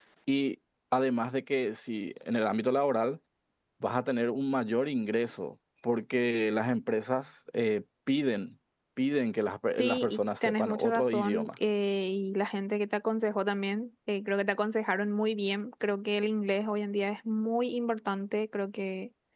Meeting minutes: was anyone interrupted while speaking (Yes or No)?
Yes